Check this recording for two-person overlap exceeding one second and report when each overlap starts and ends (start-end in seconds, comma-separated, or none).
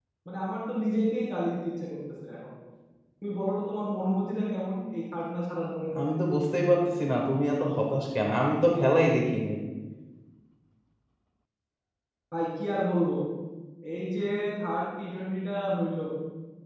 none